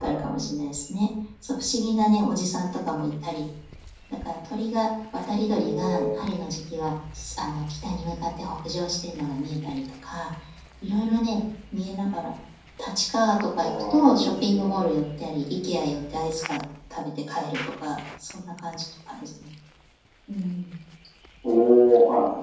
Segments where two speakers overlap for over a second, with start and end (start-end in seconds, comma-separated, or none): 13.6-14.8